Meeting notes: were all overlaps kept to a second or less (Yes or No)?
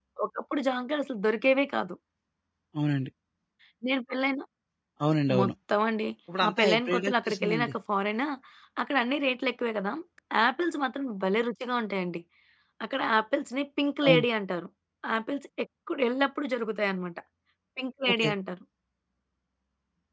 No